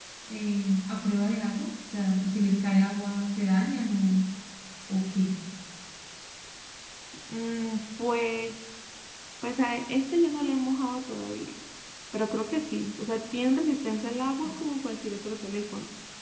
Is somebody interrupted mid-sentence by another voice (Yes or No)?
No